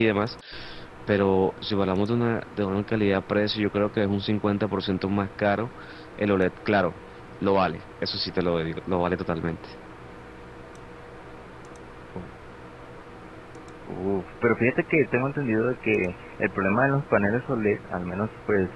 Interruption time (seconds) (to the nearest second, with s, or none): none